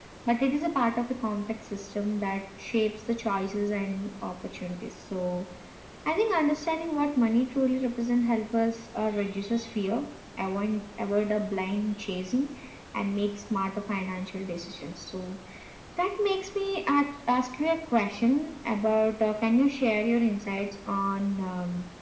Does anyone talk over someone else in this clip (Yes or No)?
No